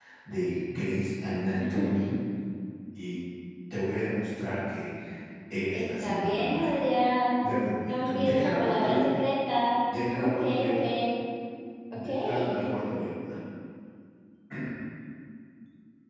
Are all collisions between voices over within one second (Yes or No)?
No